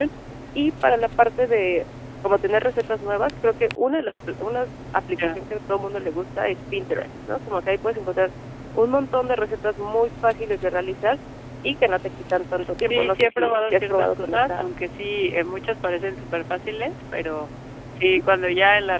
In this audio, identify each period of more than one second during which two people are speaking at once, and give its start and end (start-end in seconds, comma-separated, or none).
12.8-14.6